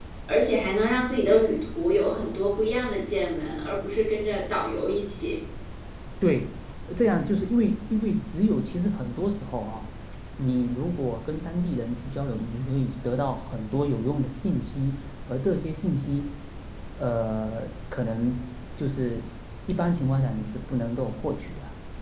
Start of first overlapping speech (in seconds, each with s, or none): none